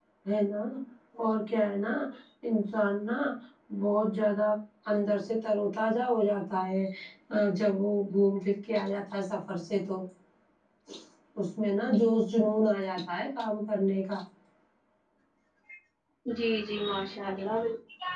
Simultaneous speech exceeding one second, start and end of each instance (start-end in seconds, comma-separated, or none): none